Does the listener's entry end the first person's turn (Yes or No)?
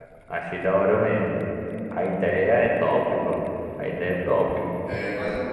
Yes